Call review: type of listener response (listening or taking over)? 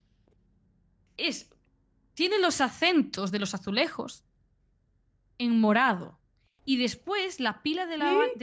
listening